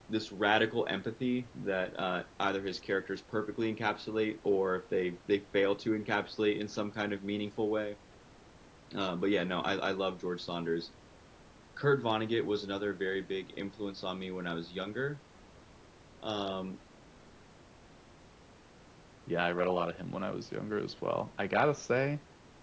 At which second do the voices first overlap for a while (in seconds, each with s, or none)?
none